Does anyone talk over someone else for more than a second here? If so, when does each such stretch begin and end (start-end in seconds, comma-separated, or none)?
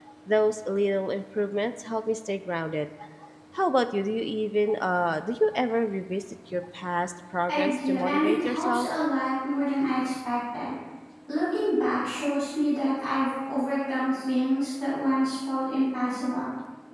7.5-8.9